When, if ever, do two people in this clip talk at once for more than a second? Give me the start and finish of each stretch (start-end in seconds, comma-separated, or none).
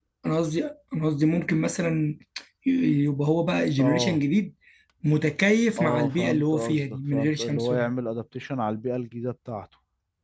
5.8-7.9